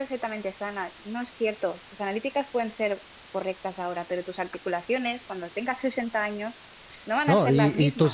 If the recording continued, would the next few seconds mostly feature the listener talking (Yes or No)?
Yes